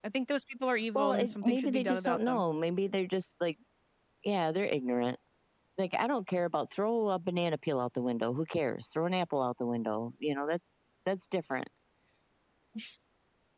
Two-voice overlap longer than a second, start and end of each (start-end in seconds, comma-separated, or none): 1.0-2.4